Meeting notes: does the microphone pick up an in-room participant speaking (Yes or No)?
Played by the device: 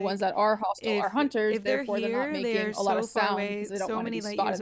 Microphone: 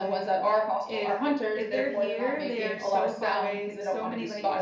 No